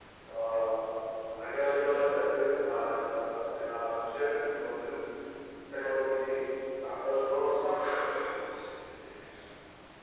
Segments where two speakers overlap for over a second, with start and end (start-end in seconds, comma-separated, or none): none